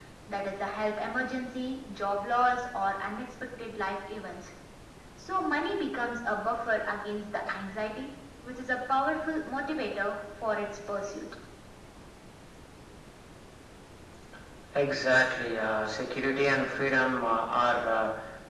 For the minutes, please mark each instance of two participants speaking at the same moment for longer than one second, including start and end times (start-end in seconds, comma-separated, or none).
none